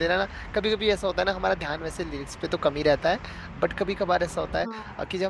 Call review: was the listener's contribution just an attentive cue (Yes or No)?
Yes